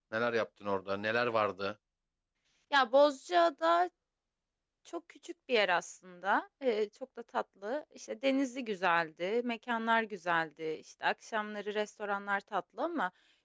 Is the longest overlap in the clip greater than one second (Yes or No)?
No